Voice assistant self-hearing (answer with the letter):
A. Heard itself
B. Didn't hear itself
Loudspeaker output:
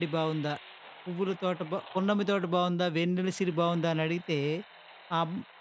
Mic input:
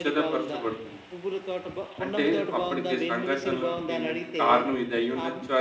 A